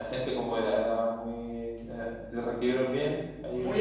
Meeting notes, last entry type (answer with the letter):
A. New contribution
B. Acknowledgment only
A